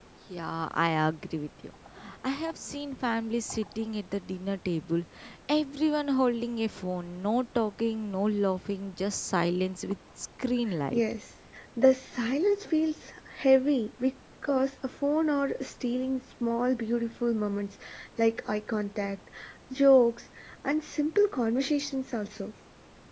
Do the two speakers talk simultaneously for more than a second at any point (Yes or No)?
No